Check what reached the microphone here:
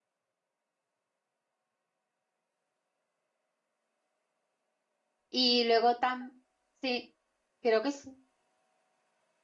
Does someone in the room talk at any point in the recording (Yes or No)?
Yes